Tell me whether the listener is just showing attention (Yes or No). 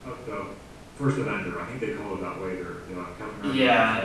No